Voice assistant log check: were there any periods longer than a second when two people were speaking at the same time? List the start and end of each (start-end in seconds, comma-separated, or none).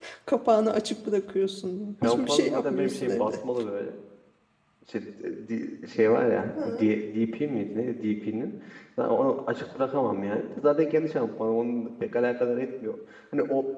2.0-3.3